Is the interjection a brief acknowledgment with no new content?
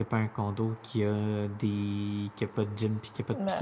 No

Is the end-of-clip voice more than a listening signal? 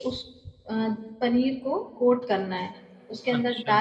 No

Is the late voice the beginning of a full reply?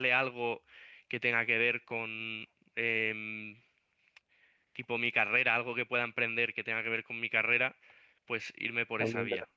Yes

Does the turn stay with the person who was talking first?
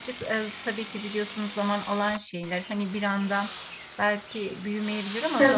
Yes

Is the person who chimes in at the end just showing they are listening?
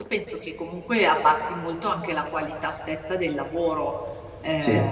No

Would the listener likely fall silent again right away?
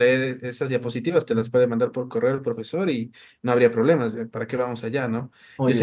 Yes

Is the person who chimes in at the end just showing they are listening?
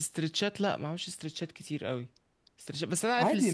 Yes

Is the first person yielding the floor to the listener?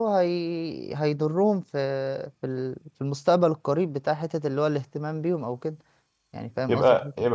Yes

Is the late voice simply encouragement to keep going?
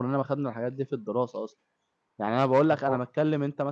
Yes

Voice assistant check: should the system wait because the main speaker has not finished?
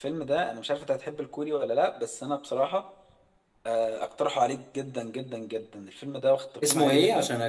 No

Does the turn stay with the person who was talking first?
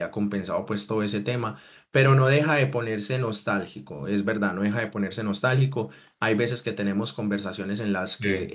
Yes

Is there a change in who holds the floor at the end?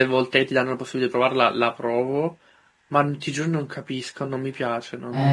Yes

